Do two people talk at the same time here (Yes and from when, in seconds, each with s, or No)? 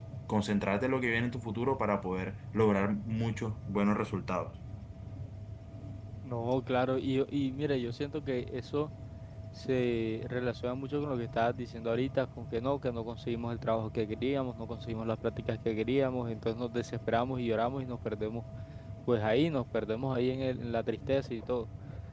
No